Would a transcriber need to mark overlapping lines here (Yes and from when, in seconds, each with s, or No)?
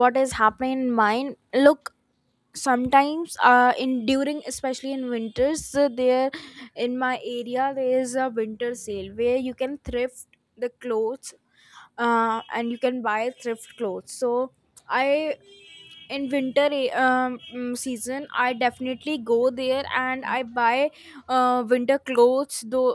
No